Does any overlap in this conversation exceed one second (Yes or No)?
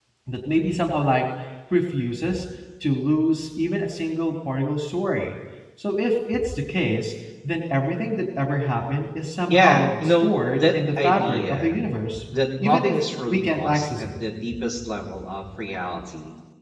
Yes